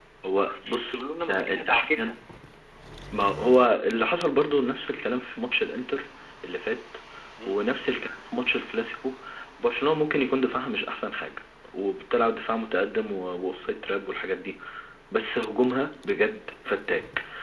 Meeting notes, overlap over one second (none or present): present